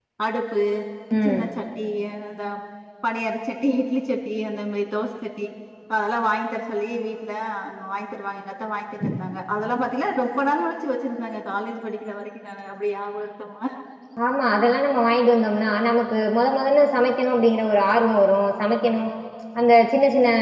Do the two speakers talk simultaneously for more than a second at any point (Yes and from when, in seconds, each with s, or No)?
No